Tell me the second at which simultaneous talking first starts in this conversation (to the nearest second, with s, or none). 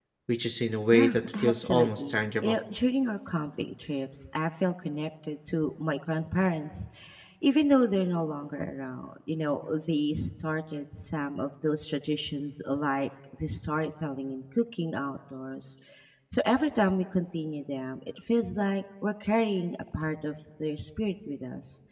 1 s